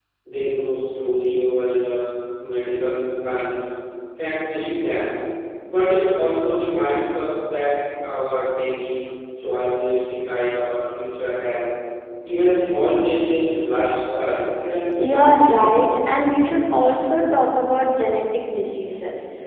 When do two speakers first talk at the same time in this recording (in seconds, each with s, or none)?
15.0 s